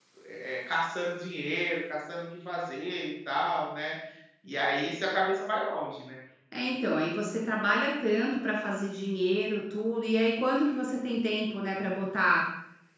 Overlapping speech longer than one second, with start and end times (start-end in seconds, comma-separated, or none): none